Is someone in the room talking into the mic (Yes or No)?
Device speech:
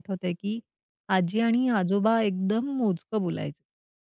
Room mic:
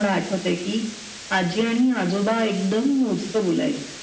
No